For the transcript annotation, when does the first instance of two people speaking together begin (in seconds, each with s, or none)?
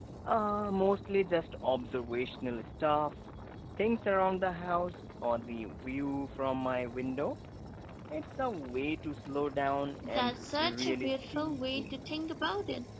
10.0 s